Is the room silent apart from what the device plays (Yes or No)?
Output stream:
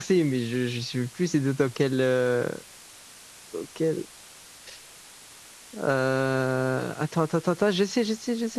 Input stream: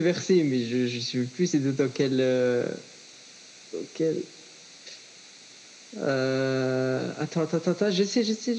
Yes